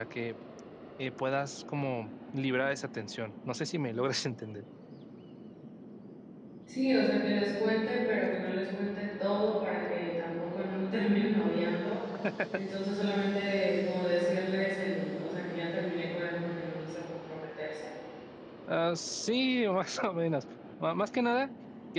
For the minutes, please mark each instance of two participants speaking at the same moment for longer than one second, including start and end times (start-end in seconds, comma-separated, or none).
none